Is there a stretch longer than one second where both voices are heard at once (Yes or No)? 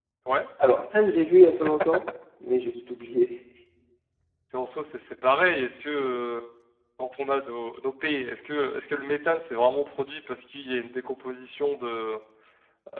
No